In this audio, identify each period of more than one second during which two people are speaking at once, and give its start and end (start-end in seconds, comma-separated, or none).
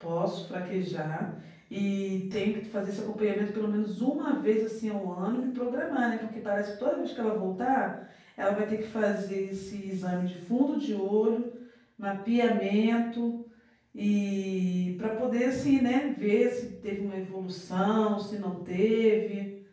none